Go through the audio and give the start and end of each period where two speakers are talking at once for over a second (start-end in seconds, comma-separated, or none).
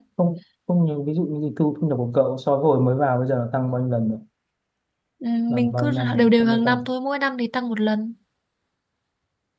5.5-6.8